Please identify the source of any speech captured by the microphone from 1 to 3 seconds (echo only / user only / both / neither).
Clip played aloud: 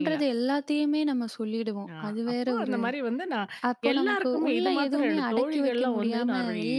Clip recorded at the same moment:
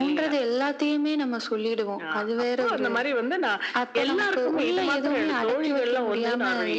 echo only